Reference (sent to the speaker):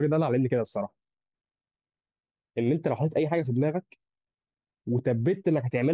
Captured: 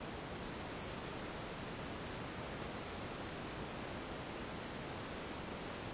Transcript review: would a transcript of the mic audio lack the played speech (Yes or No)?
Yes